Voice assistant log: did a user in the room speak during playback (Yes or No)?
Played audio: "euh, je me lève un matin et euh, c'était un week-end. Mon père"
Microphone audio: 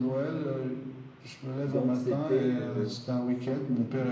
Yes